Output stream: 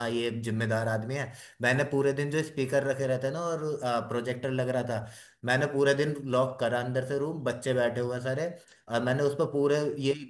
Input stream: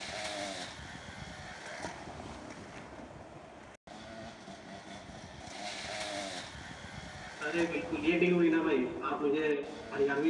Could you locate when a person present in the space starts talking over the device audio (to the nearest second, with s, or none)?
7 s